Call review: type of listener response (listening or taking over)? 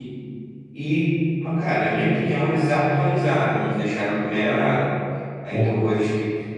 listening